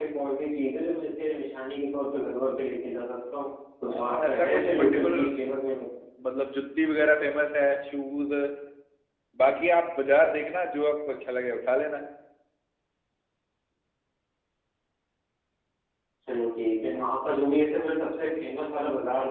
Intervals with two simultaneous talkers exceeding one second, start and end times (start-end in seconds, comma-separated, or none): 3.9-5.3